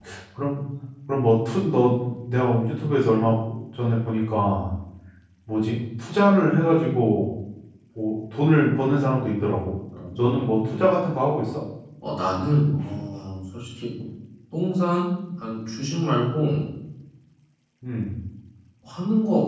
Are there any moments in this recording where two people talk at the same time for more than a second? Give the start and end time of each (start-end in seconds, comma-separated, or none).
none